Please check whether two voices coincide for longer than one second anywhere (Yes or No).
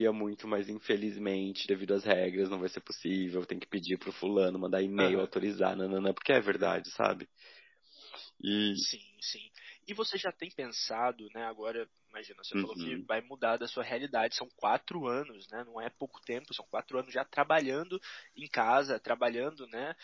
No